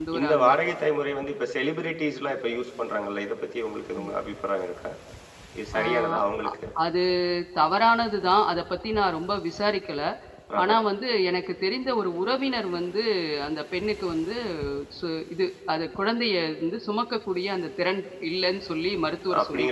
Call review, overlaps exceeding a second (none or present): none